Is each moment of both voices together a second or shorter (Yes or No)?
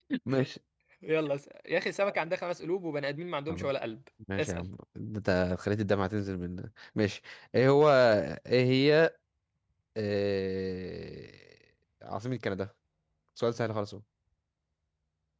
Yes